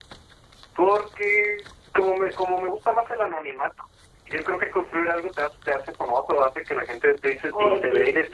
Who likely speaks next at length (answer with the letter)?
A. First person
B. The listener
A